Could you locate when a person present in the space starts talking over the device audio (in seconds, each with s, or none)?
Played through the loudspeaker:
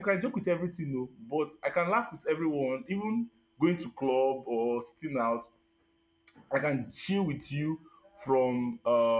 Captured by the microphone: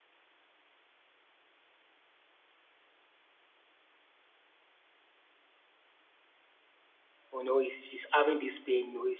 7.3 s